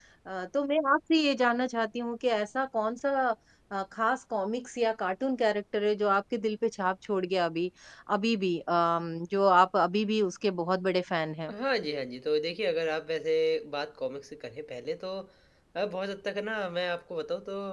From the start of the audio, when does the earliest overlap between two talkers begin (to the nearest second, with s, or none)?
none